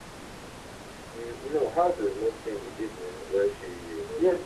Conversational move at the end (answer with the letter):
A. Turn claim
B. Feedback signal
A